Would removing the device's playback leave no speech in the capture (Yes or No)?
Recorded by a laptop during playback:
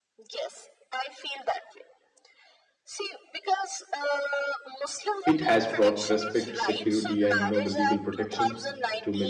No